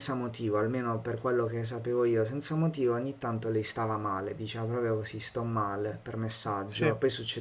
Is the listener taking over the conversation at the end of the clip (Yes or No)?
No